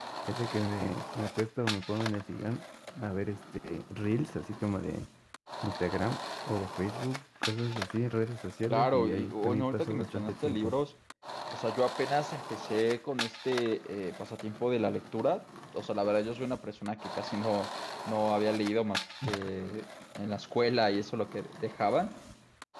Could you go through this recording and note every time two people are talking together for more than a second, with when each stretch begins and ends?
8.7-10.7

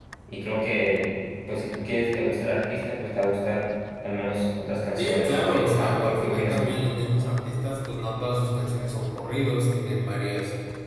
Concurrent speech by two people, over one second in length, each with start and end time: 5.0-6.7

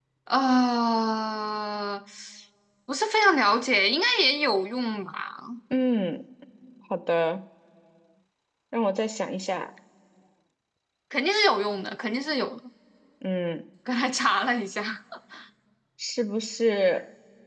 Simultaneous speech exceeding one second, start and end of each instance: none

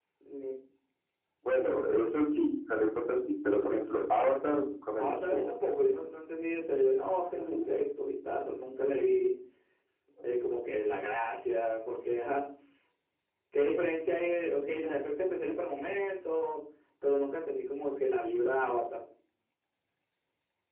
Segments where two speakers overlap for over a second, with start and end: none

